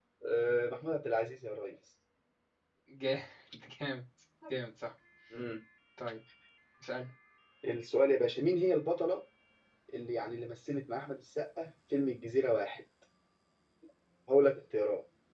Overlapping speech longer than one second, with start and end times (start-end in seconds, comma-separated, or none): none